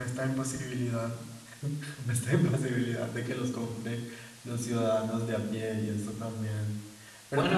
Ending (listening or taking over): taking over